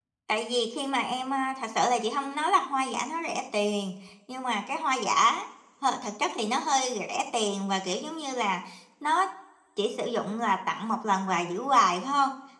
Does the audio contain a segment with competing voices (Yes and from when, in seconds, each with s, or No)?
No